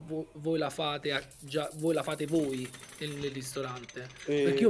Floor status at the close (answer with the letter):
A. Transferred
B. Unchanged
B